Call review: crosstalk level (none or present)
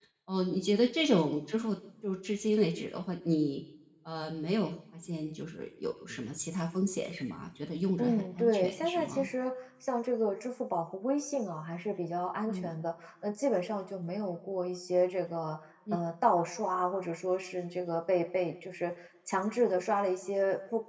present